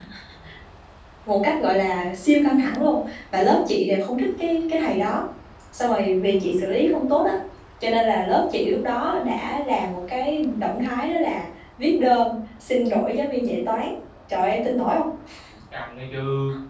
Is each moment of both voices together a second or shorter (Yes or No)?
Yes